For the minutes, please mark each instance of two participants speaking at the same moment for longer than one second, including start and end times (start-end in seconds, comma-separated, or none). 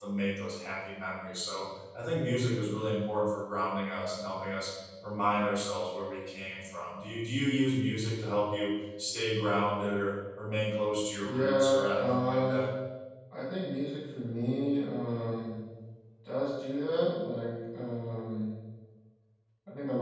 11.2-12.7